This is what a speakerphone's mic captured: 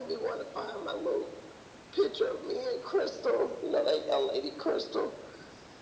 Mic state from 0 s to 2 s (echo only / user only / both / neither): echo only